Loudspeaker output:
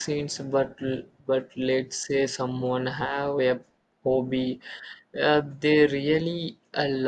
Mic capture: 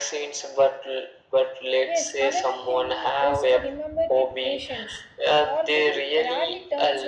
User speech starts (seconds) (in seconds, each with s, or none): 1.9 s